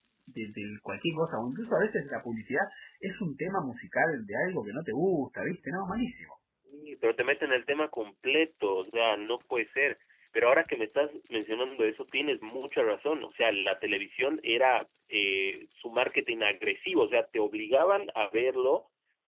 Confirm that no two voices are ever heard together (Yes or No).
Yes